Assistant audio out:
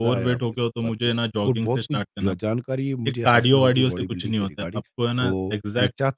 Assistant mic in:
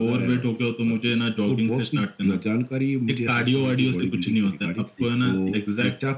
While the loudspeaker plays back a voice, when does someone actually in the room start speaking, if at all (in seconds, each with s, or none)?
5.0 s